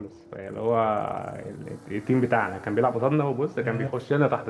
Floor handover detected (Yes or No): No